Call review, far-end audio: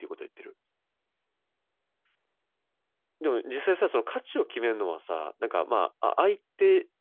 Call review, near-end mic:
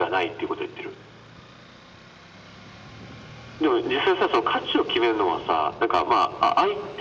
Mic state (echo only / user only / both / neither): echo only